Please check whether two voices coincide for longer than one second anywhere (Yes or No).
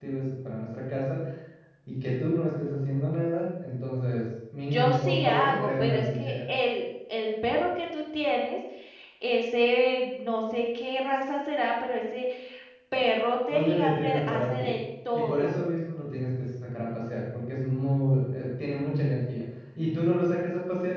Yes